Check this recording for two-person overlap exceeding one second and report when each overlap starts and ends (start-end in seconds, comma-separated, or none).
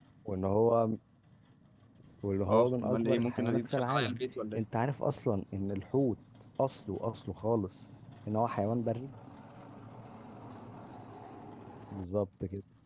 2.5-4.2